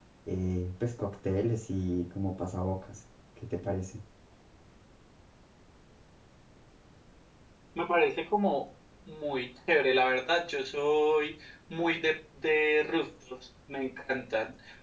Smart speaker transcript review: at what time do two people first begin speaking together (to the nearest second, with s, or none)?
none